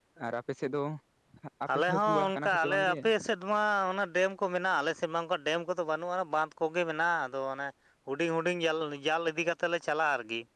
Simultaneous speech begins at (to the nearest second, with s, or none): 2 s